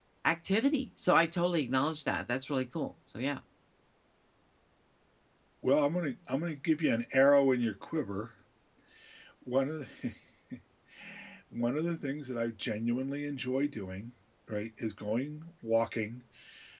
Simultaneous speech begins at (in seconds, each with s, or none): none